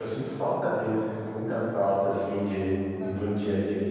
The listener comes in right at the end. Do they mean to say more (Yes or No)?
No